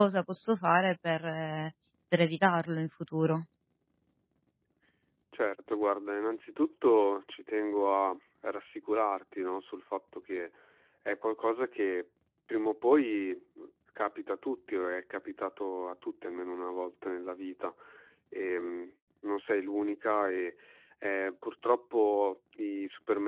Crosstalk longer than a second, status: none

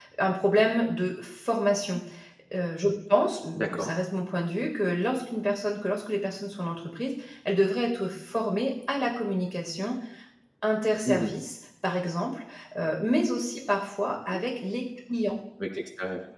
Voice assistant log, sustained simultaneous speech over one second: none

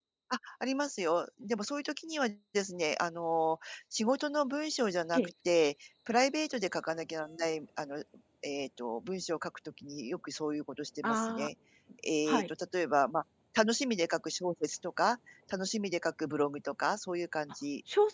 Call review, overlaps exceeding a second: none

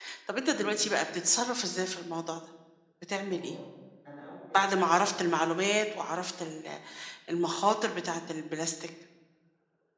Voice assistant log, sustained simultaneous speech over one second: none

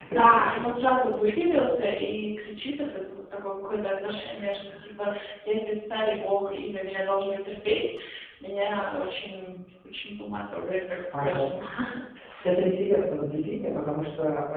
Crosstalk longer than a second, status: none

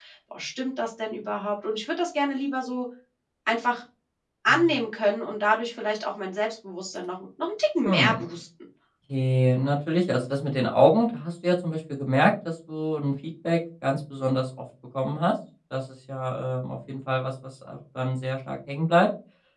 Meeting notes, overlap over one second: none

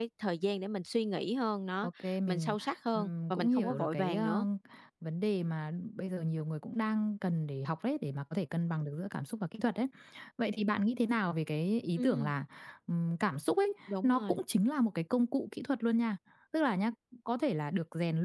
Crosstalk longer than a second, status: present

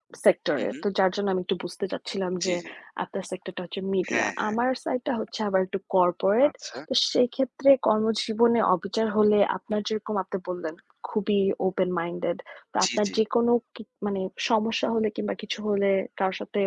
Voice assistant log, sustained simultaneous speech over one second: none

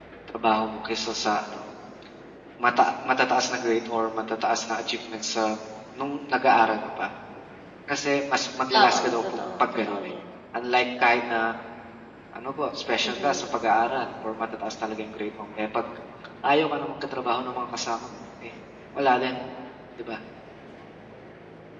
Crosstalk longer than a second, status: present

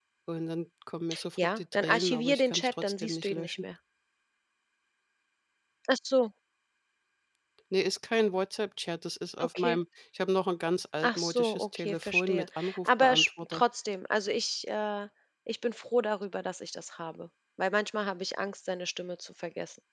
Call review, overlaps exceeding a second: present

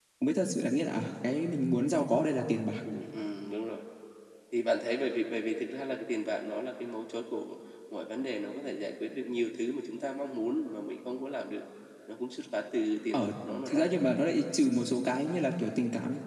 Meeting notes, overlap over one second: none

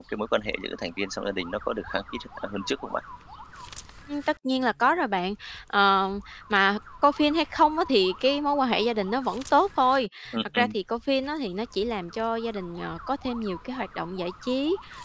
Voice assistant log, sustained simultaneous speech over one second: none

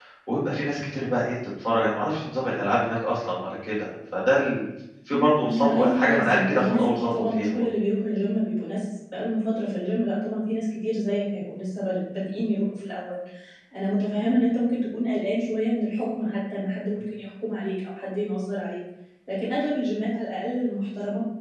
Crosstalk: present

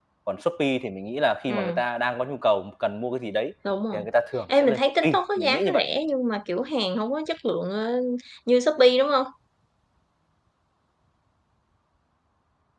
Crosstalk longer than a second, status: present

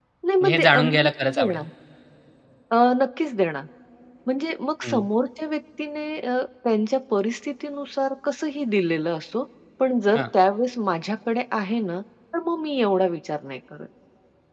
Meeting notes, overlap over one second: present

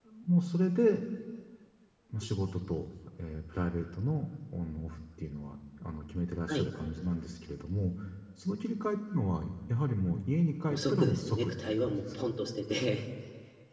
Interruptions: present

